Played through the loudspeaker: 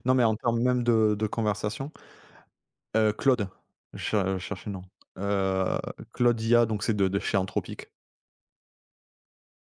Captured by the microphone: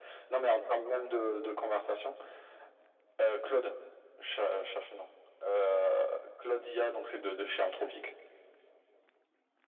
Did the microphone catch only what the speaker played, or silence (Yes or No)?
Yes